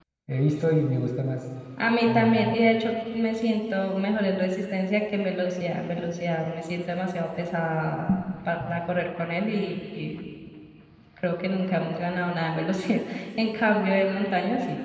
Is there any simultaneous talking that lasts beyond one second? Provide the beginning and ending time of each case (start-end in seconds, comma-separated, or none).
none